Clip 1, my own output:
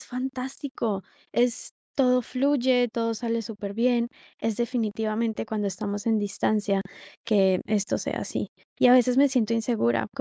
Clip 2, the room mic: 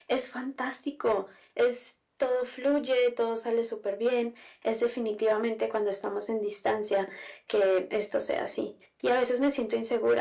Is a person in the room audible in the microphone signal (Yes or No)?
No